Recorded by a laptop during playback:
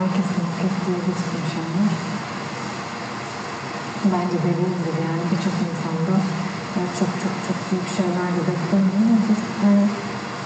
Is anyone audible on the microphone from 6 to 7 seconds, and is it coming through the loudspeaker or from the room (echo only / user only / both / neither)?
echo only